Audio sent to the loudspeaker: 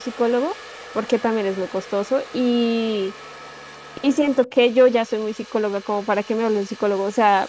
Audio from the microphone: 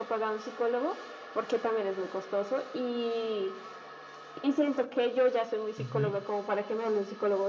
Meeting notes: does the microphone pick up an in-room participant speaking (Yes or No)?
Yes